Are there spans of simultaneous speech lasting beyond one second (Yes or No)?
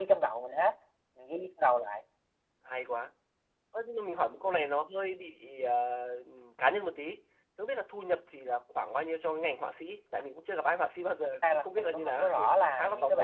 Yes